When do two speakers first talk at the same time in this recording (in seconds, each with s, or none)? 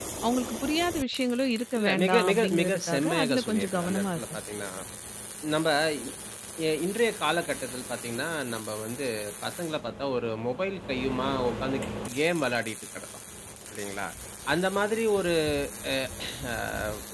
1.8 s